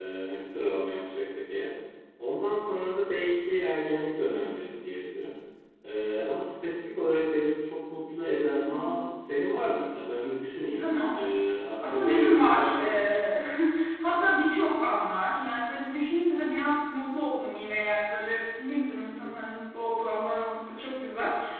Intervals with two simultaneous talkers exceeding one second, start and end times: 11.9-13.2

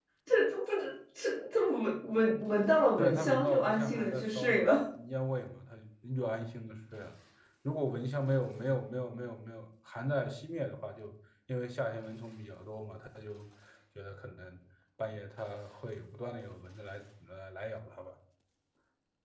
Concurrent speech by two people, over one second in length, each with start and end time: 3.0-4.7

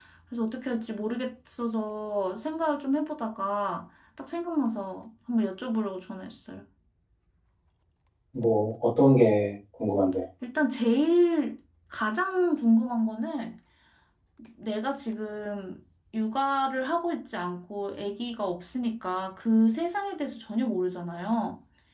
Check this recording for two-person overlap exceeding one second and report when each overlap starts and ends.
none

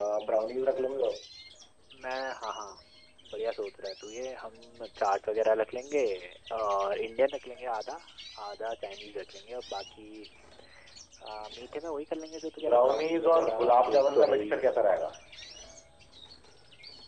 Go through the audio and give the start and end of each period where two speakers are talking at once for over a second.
12.6-14.6

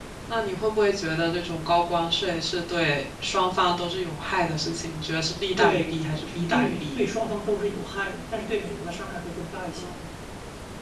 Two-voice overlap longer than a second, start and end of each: 5.6-7.0

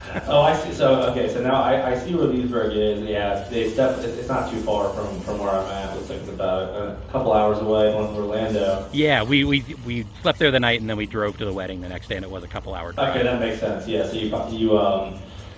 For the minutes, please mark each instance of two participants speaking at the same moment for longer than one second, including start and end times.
none

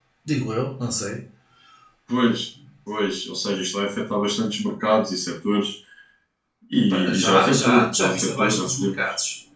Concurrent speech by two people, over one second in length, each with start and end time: 6.9-9.0

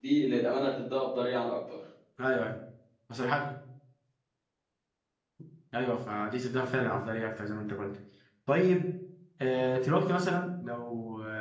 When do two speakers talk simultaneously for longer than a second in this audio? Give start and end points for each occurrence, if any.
none

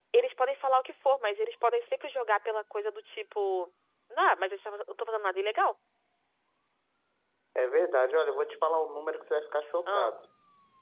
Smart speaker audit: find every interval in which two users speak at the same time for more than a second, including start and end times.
none

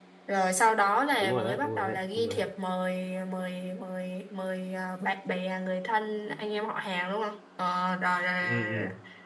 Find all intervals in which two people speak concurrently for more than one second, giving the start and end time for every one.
1.2-2.5

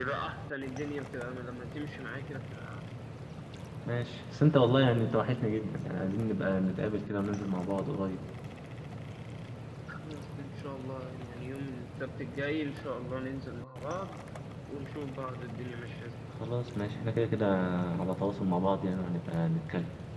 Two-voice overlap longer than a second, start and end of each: none

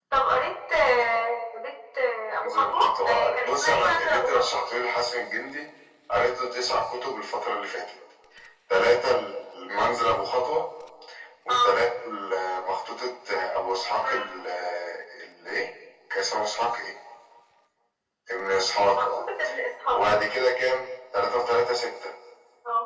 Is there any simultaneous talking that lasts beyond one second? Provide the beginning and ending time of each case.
2.4-4.6

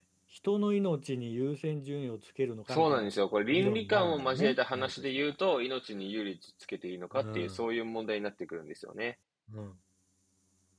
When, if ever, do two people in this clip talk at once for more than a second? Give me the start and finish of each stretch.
3.5-5.3

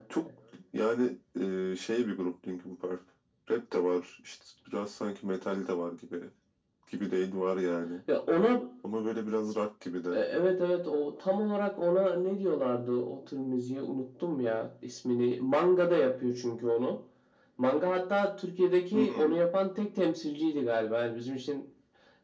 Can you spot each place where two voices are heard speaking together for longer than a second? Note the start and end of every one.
none

